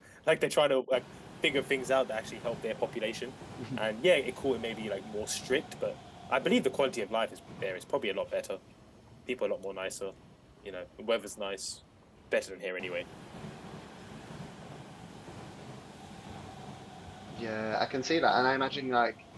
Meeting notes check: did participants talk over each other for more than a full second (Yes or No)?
No